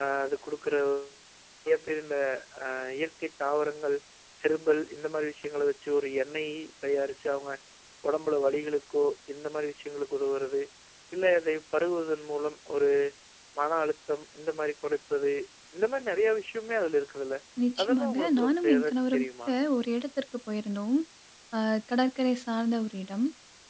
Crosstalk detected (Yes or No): Yes